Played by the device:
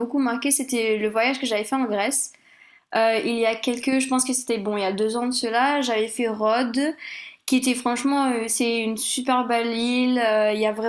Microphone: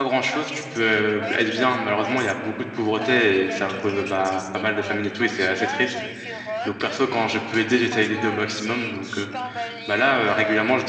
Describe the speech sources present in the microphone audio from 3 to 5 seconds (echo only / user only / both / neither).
both